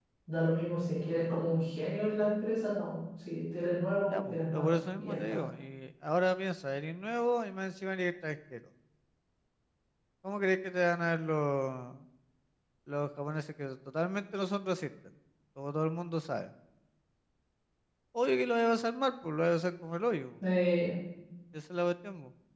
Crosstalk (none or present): present